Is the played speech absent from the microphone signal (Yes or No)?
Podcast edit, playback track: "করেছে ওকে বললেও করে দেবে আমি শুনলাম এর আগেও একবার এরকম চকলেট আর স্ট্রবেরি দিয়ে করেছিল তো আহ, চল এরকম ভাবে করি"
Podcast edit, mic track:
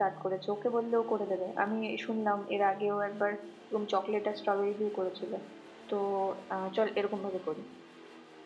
No